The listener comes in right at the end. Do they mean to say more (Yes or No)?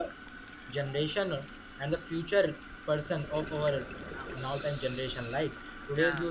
No